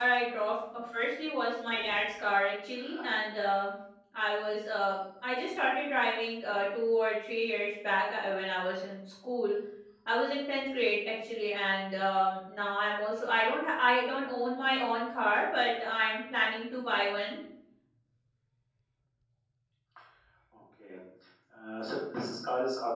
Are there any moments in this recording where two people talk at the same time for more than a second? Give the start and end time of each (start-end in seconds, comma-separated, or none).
none